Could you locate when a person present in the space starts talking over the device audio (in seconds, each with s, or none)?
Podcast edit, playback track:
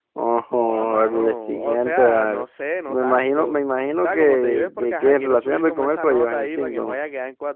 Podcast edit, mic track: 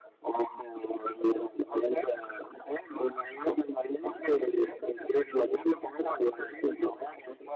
none